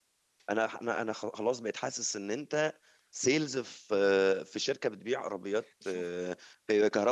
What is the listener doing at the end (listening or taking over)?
listening